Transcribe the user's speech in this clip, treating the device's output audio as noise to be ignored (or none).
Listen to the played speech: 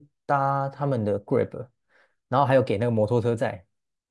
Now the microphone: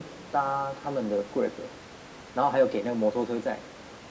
none